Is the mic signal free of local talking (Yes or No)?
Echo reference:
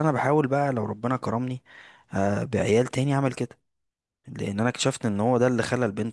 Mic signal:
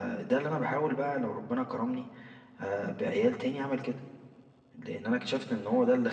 Yes